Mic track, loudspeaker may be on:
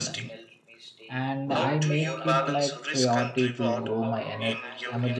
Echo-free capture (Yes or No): No